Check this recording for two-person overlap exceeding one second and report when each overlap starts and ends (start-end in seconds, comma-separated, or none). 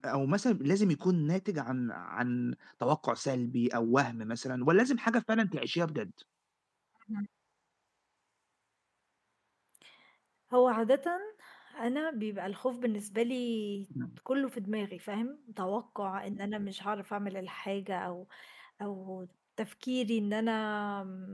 none